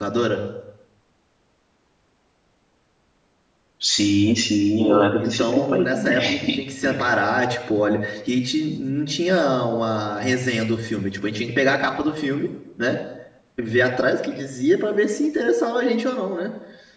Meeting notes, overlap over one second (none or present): present